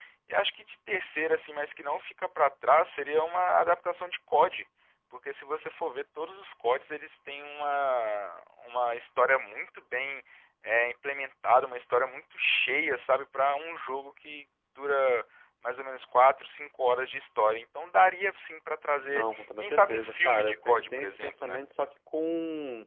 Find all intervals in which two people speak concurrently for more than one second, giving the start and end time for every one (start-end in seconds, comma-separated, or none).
19.1-21.6